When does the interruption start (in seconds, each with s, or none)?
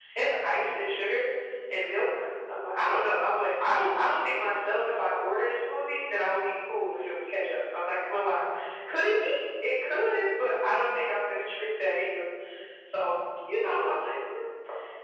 none